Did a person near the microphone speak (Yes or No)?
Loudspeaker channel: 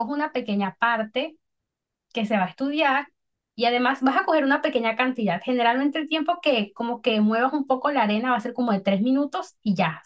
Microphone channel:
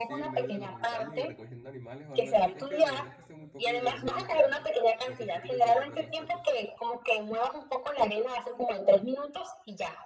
Yes